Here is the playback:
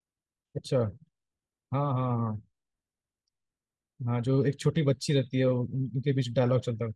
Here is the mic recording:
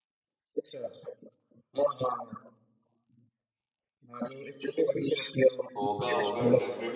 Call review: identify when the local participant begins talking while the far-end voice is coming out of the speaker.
6 s

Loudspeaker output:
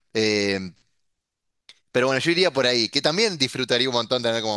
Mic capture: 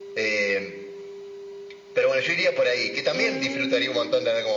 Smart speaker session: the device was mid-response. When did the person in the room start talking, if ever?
3 s

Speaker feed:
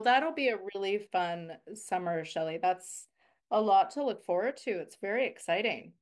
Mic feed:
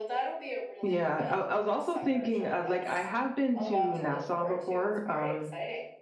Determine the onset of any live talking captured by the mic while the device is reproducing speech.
1 s

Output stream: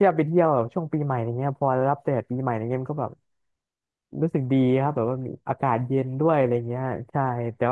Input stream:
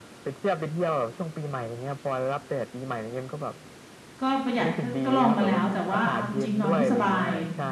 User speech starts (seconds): 4 s

